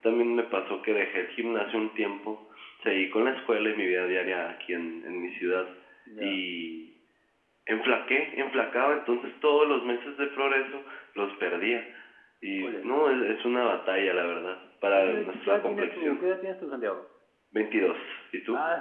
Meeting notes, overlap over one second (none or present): present